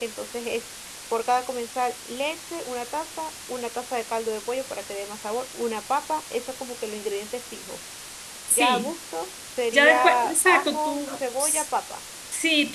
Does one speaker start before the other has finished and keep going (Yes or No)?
Yes